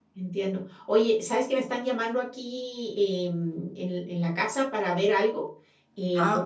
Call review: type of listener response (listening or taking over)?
listening